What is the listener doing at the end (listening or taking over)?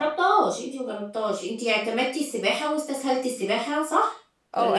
taking over